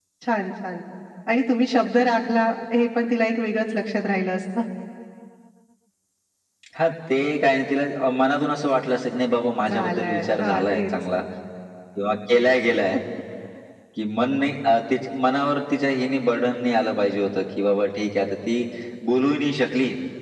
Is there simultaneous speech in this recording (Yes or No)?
Yes